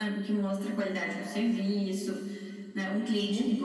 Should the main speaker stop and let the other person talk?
No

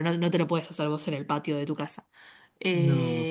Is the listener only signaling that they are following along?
Yes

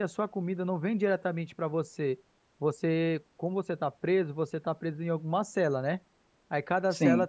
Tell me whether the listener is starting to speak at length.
No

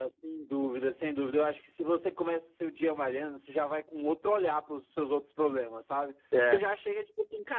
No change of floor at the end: Yes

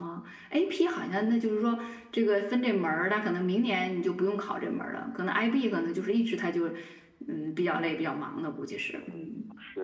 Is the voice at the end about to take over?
Yes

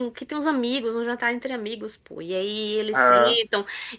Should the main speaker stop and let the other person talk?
No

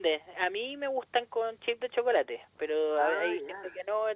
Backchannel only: Yes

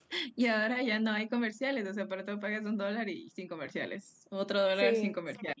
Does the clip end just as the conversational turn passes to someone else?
No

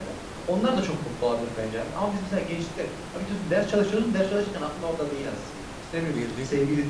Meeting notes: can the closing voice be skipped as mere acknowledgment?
Yes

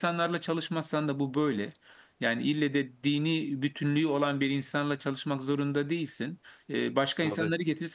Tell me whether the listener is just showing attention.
Yes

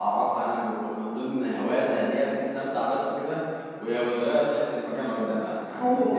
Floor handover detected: No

